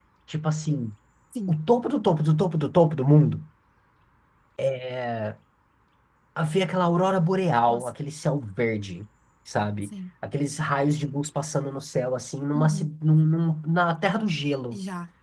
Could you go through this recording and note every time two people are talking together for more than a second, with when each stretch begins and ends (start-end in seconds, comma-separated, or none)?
none